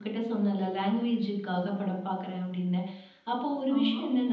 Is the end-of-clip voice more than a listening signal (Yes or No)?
No